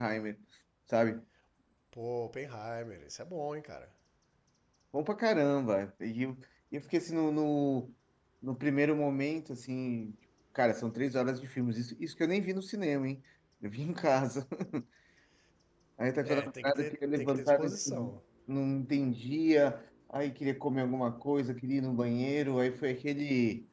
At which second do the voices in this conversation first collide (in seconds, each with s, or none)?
16.2 s